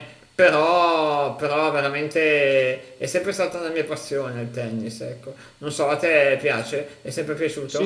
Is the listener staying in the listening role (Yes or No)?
No